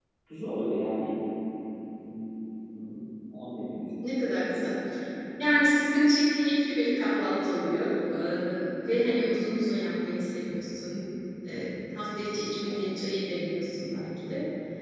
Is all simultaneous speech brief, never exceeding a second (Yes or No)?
Yes